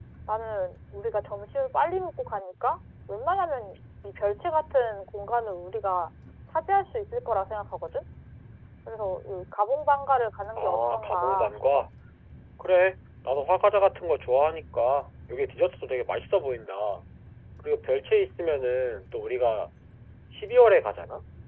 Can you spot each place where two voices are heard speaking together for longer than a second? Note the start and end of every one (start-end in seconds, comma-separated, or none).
10.6-11.8